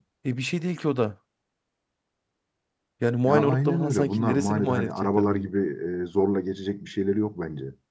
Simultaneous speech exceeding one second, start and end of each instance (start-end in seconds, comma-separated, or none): 3.3-5.5